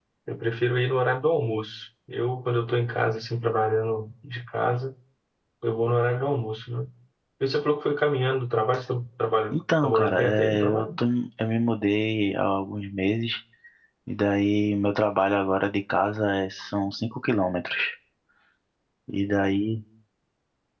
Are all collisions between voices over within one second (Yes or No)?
No